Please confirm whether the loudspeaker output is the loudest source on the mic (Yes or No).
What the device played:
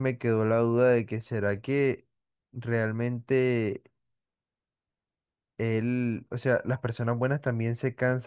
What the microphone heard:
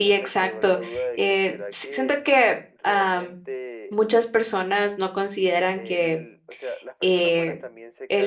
No